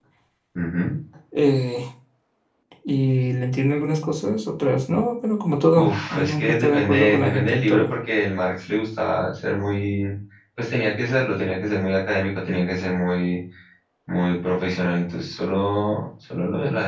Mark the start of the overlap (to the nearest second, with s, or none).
6 s